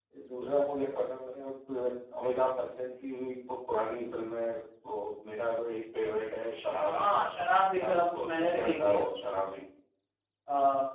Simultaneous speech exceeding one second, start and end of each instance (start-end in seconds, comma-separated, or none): 7.8-9.0